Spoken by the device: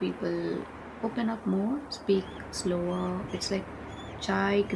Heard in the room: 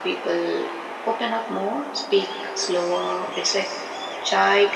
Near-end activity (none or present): none